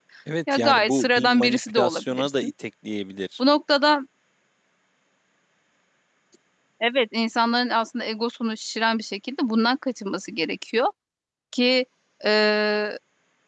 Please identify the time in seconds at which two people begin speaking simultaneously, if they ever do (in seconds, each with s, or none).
0.5 s